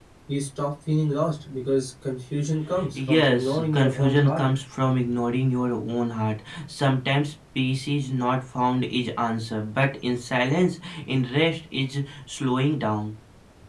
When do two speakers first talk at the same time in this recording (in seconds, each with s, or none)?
2.8 s